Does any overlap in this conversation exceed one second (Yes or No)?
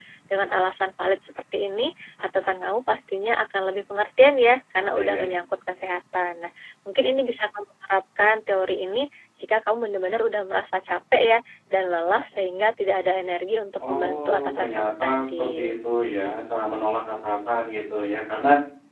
Yes